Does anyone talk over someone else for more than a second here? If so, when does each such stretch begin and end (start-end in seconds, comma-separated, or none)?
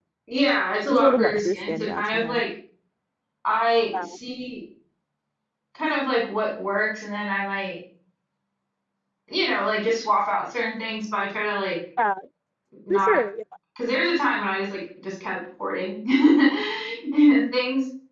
0.9-2.4